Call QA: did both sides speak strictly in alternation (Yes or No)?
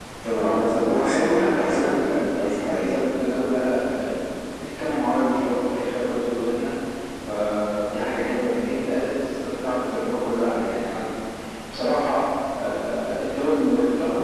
No